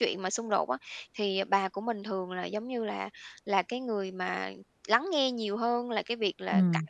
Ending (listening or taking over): listening